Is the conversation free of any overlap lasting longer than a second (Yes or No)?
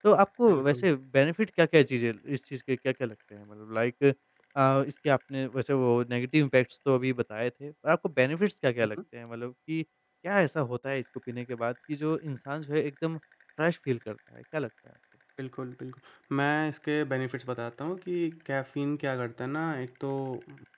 Yes